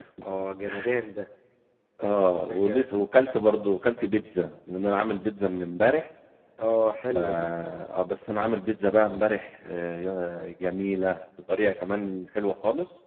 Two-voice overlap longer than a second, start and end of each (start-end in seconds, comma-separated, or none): none